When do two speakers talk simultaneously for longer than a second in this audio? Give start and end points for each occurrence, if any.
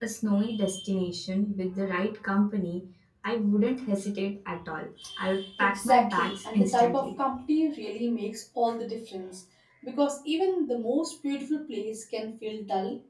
5.6-7.1

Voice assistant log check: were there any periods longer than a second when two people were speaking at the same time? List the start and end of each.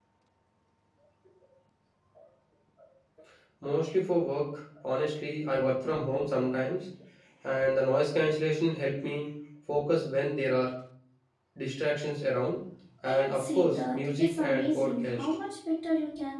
13.1-15.2

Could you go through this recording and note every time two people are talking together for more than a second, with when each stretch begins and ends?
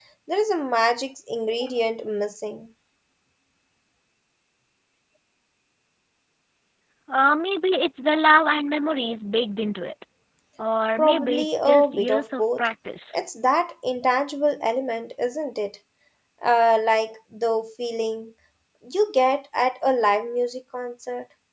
11.0-12.7

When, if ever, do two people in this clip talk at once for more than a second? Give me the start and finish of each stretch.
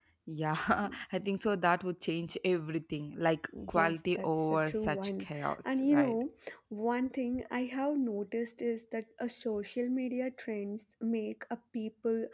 3.7-6.2

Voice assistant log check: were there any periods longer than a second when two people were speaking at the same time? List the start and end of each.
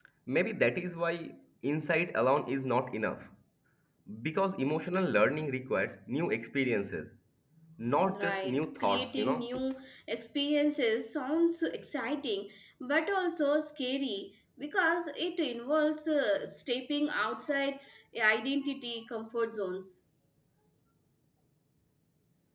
8.0-9.5

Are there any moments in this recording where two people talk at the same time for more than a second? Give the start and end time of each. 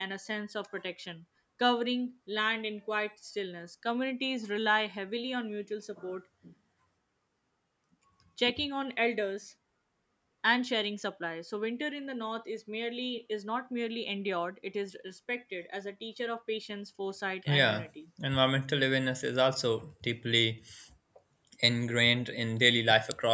none

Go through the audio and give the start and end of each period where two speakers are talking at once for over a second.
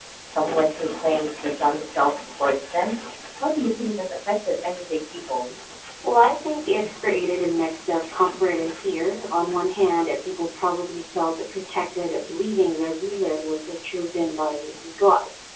none

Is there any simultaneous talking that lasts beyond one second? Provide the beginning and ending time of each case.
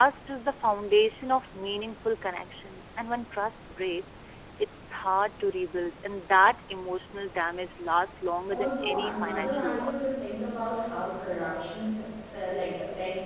8.5-10.1

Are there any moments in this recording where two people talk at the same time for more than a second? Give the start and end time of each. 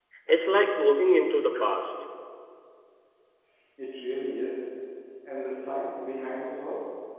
none

